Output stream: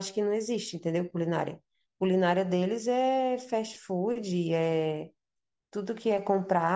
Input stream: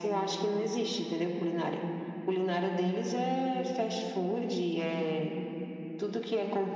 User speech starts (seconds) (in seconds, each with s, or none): none